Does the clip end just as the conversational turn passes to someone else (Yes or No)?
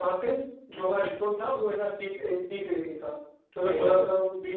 No